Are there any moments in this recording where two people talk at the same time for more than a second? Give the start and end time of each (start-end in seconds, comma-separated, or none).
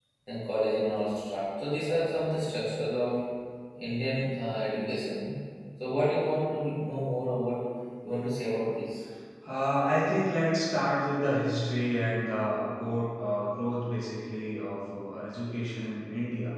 none